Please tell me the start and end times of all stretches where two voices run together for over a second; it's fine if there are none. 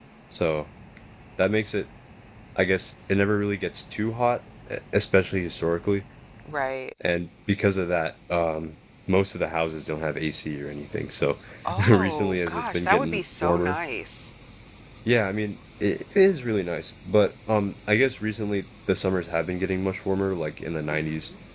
11.9-13.8

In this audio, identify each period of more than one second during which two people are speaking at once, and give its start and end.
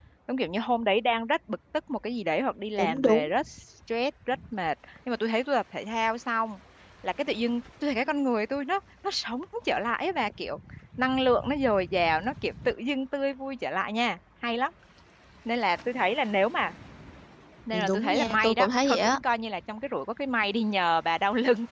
17.9-19.2

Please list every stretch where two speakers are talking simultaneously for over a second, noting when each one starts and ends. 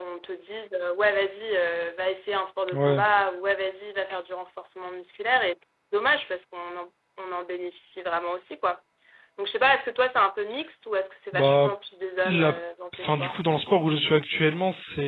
none

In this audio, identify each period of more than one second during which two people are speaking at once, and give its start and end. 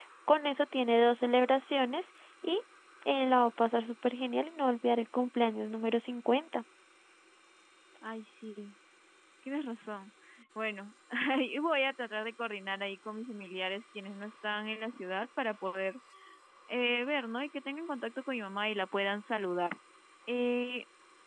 none

